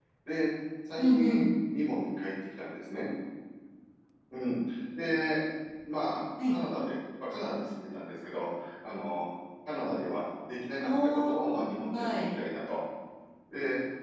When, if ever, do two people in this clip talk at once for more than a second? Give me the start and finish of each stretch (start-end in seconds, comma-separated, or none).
10.8-12.3